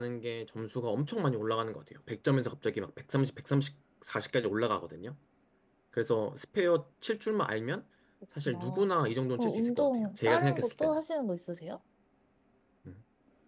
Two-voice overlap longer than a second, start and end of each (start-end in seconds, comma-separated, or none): 9.3-11.0